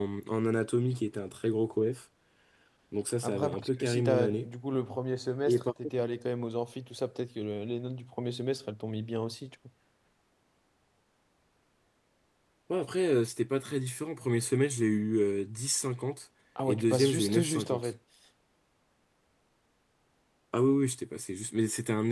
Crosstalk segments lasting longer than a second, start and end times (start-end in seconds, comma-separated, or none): 3.2-4.5, 16.7-17.9